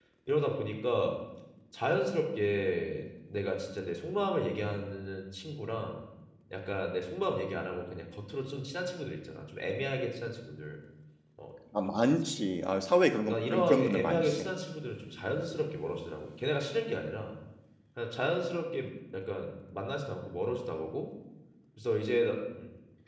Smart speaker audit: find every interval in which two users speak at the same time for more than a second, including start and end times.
13.2-14.5

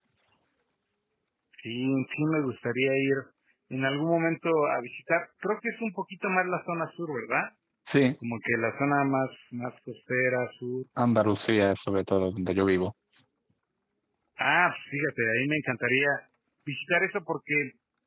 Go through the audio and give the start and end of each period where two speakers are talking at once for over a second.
none

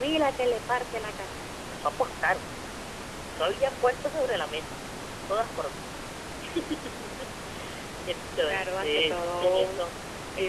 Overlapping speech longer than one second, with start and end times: 8.4-9.7

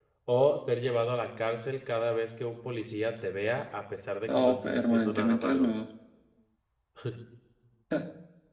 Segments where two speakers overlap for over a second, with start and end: 4.3-5.7

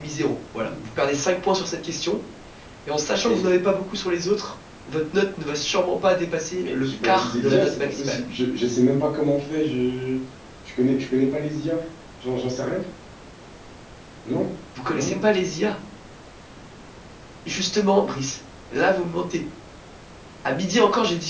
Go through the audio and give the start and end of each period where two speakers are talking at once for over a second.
6.7-8.2

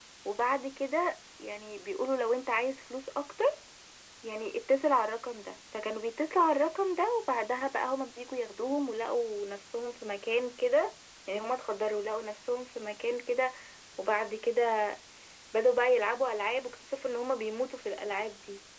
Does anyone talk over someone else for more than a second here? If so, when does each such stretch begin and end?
none

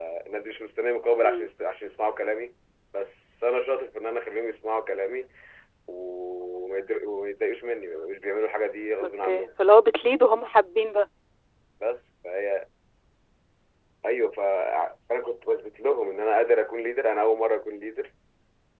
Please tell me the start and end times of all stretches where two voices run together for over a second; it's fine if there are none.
none

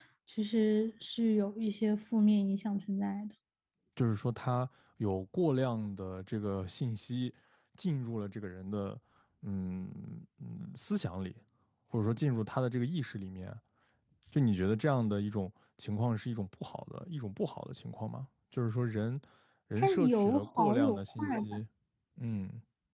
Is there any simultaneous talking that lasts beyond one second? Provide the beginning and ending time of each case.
19.8-21.6

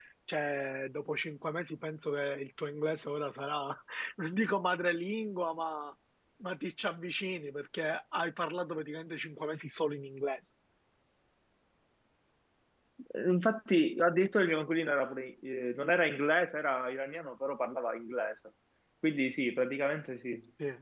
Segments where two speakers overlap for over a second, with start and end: none

